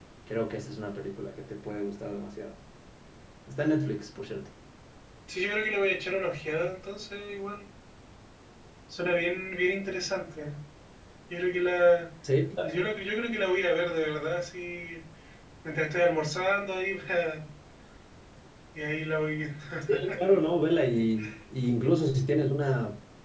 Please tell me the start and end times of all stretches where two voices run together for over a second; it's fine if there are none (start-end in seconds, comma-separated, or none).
none